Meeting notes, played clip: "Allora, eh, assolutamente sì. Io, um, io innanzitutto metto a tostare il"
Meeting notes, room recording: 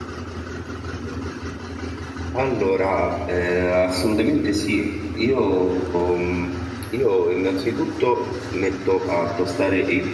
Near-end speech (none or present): none